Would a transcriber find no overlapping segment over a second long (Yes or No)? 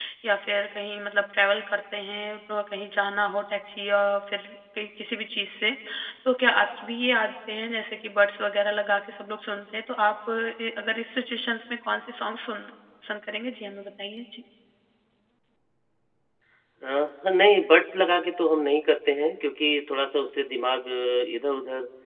Yes